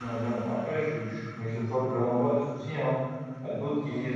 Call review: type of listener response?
listening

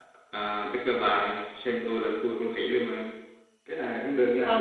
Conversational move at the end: listening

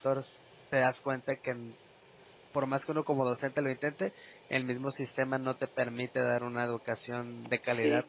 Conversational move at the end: taking over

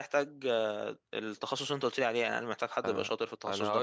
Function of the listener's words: taking over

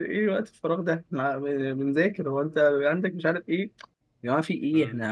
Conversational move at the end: listening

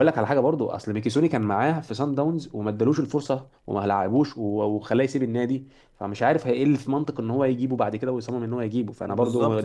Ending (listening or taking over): taking over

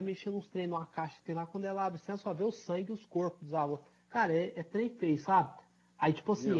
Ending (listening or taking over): listening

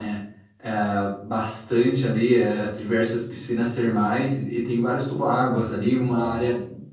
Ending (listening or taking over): listening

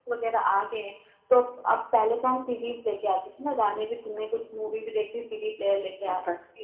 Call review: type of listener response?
taking over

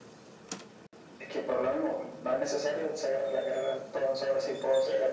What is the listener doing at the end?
taking over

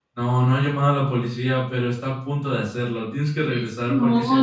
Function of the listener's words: taking over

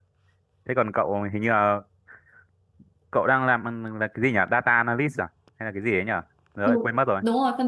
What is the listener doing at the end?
taking over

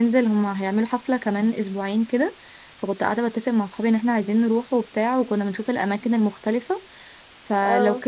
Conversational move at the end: listening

